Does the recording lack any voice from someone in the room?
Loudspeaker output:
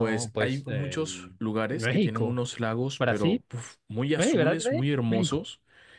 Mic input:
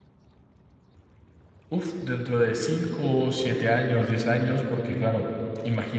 No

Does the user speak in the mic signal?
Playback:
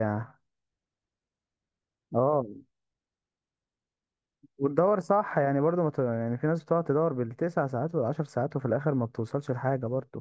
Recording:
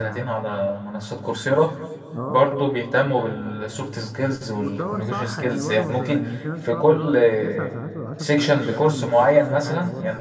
Yes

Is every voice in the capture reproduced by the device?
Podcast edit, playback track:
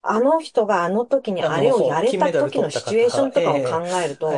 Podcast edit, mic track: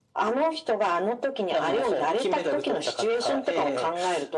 Yes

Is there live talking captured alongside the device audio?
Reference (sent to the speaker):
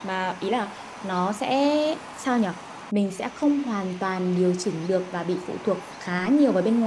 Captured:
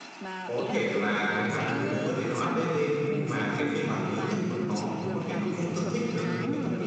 Yes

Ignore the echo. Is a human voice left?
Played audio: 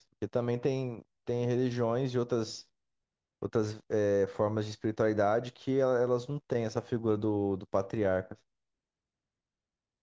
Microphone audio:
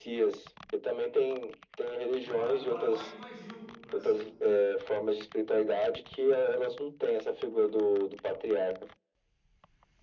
Yes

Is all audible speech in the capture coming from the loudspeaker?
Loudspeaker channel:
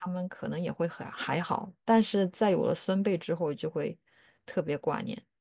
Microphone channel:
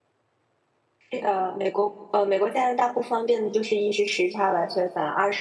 No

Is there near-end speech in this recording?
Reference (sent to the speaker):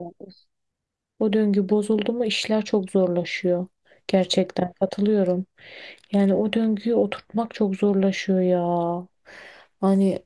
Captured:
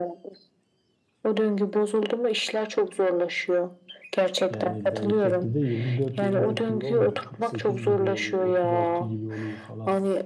Yes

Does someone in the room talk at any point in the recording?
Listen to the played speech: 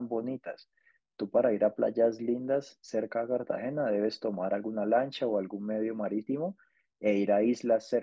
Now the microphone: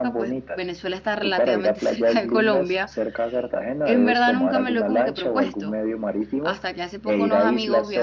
Yes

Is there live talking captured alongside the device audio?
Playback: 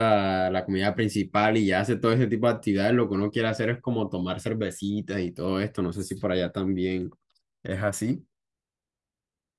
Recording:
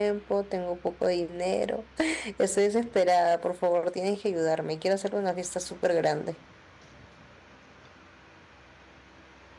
Yes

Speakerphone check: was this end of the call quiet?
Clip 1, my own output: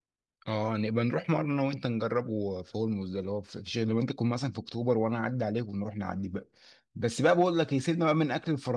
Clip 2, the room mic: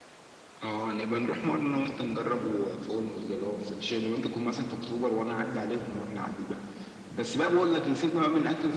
Yes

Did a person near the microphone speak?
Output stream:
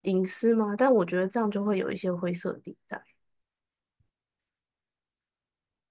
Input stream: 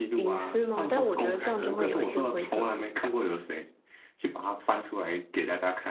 Yes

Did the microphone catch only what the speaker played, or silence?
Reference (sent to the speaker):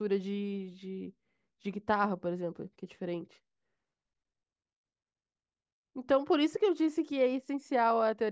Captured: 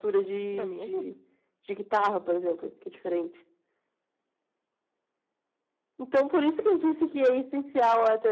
No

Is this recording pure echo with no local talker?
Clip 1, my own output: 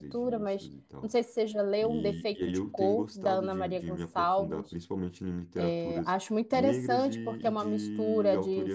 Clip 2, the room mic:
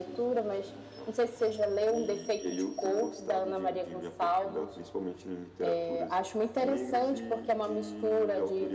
Yes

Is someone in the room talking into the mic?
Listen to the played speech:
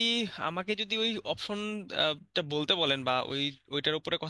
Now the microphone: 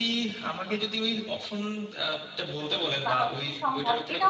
Yes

